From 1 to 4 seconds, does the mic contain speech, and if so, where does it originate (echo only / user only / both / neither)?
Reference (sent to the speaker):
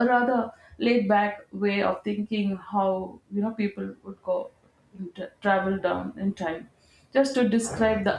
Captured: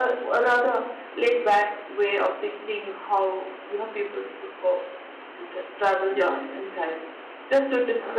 echo only